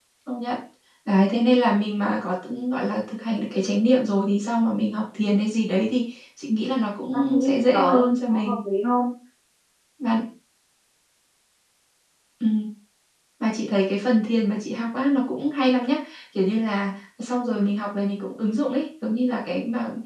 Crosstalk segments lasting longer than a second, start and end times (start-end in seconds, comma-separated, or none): 7.1-8.6